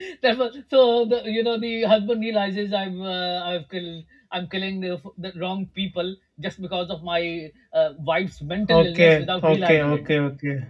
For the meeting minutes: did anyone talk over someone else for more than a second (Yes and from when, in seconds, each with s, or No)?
Yes, from 8.7 s